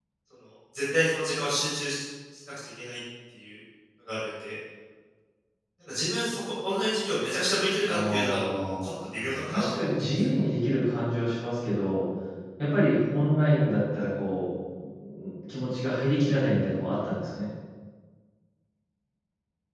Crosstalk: present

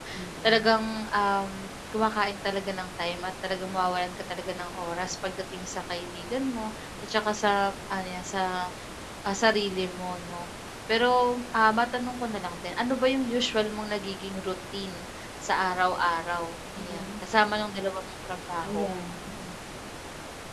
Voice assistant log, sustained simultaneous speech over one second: none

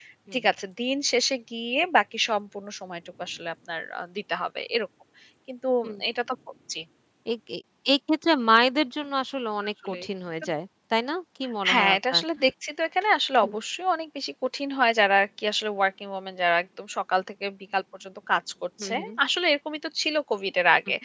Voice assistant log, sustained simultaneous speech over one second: none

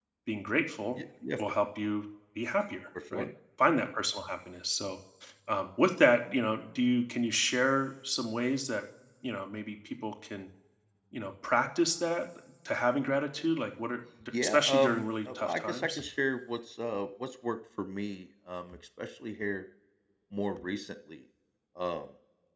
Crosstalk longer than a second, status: present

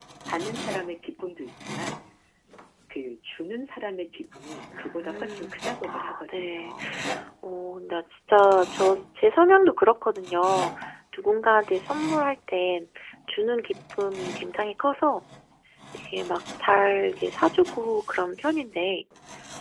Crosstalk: present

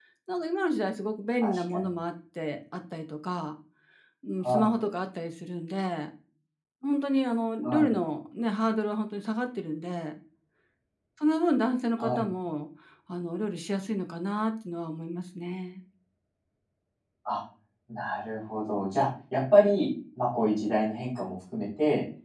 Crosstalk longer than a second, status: none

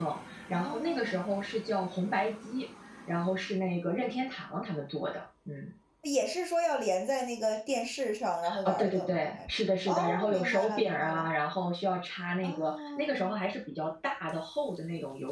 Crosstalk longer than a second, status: present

